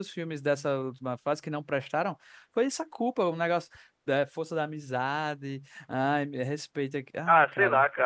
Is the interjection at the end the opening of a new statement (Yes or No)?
Yes